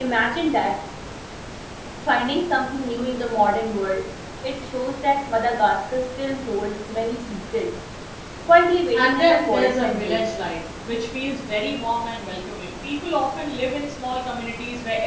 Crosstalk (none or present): present